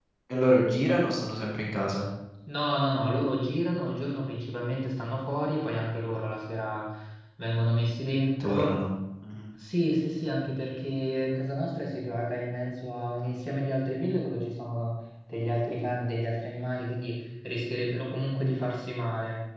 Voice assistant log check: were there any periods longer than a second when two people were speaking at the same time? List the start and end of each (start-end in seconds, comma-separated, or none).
none